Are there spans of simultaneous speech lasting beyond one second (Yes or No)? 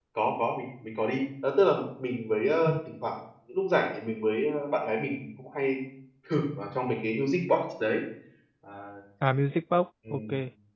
No